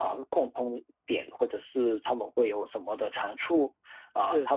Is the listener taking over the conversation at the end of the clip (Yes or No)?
No